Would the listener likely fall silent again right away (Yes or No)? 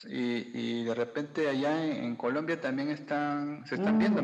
No